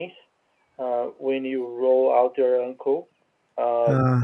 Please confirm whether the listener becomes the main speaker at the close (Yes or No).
No